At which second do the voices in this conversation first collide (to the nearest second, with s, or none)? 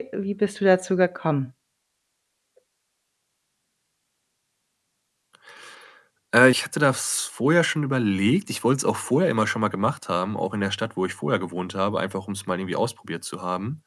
none